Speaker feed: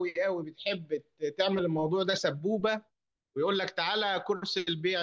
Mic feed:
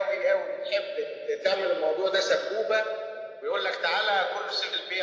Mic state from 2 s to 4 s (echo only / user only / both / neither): echo only